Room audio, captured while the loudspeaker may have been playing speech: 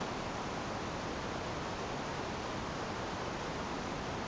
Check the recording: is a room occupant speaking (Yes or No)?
No